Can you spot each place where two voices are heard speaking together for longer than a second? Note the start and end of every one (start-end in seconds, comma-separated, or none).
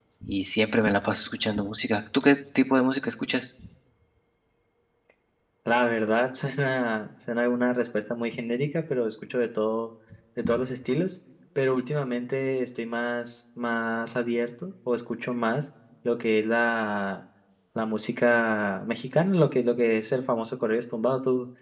none